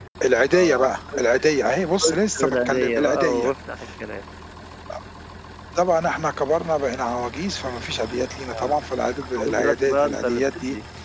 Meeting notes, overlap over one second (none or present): present